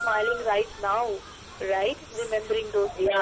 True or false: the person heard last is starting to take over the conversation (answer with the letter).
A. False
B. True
B